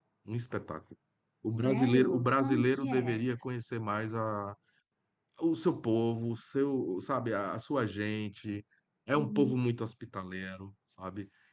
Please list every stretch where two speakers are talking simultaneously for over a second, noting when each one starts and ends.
1.6-3.2

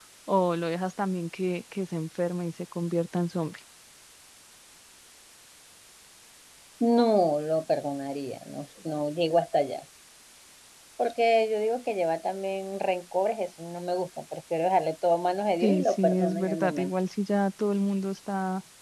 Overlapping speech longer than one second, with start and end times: 15.6-16.9

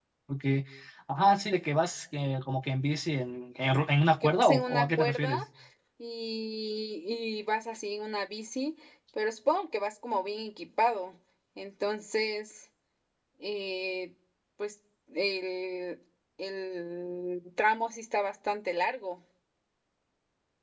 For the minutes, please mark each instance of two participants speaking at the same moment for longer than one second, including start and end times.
4.2-5.4

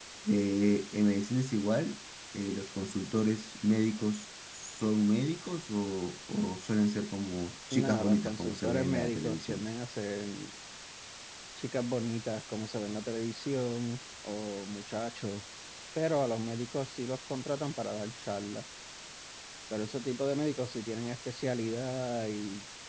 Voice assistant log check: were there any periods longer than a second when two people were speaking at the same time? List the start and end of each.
7.7-9.7

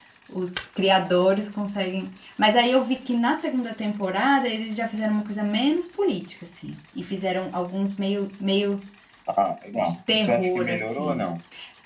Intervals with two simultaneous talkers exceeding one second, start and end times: 9.7-11.3

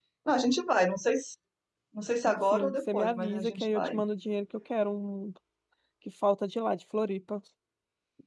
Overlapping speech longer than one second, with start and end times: 2.5-4.0

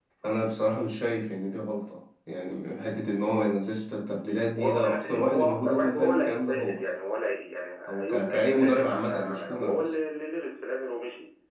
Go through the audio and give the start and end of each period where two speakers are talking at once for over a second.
4.6-6.8, 7.9-10.0

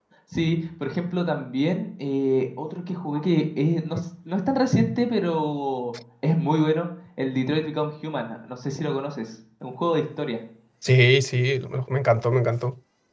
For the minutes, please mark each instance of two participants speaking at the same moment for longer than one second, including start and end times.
none

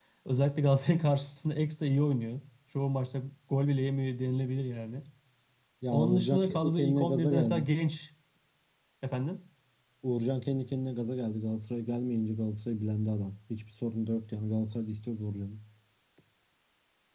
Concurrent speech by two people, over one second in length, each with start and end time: 5.9-7.6

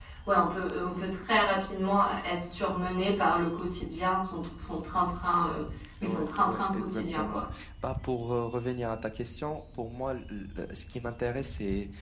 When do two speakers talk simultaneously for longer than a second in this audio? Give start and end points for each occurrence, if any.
6.0-7.4

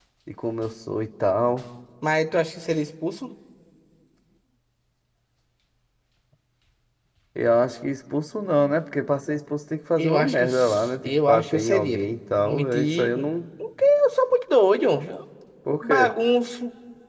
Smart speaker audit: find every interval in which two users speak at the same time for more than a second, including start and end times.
10.0-13.1

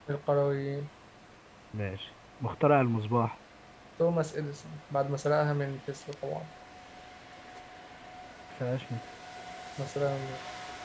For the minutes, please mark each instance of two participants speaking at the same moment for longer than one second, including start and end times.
none

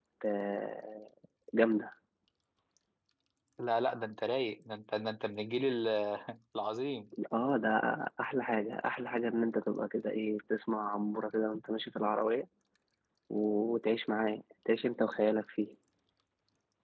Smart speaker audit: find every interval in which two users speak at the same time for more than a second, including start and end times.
none

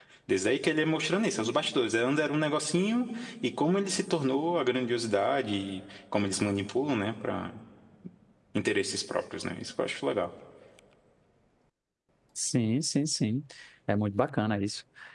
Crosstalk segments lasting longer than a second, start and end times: none

